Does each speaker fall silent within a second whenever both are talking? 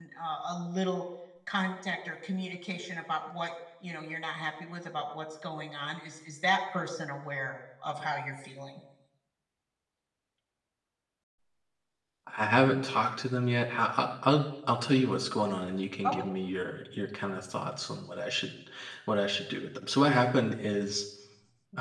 Yes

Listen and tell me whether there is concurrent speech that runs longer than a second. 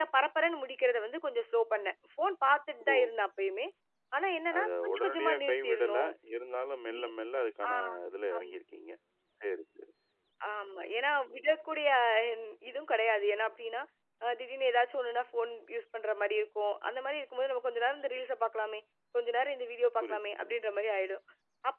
Yes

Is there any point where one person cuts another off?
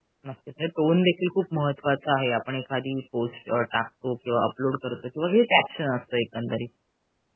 No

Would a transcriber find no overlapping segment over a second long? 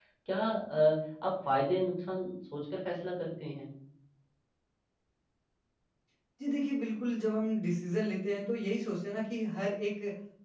Yes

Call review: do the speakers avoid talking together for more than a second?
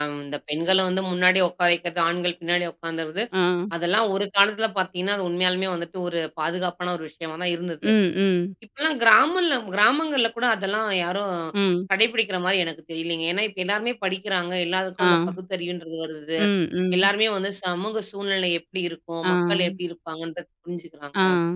Yes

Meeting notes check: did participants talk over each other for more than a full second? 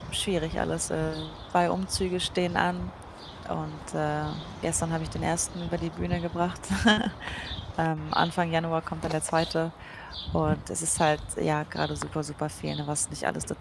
No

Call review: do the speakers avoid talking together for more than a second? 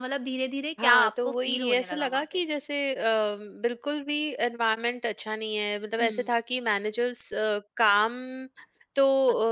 No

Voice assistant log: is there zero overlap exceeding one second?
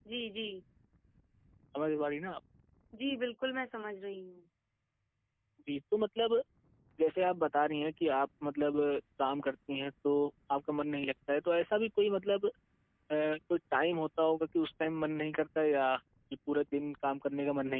Yes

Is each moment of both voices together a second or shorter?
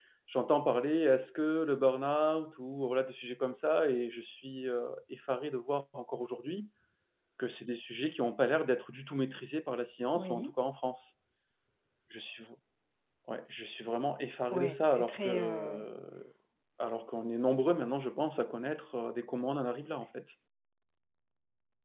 No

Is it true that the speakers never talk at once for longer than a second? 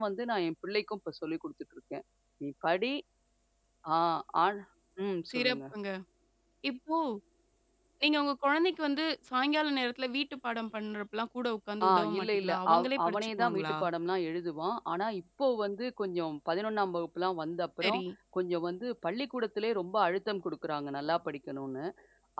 No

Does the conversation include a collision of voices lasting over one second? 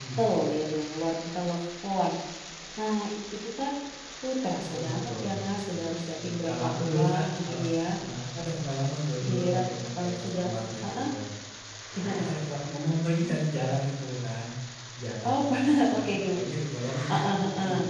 Yes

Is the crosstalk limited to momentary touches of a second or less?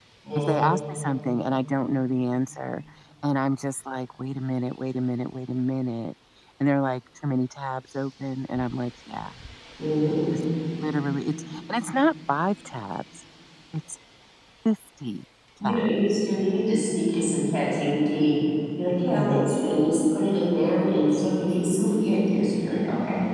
Yes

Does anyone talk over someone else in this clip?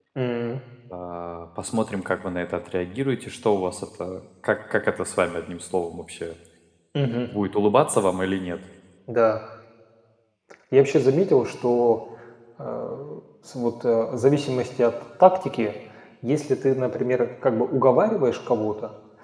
No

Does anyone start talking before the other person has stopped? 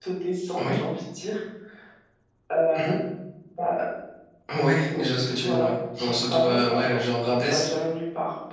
Yes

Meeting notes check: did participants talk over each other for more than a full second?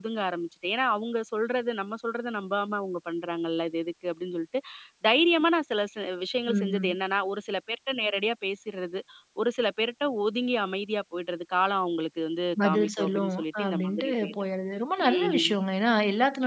Yes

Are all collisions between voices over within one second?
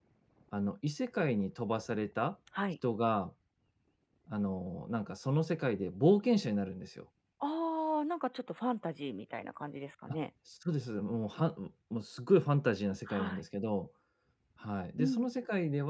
Yes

